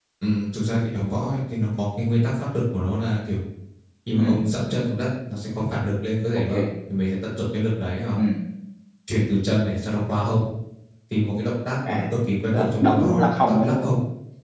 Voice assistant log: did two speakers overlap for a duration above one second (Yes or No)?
Yes